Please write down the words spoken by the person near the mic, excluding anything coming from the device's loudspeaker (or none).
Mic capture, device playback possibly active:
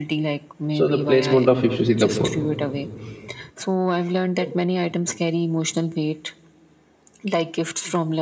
So, the placement of, if you see the, fur-